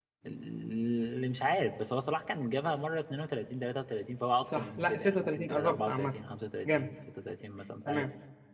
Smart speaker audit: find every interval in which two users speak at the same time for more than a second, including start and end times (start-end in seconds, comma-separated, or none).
4.5-6.2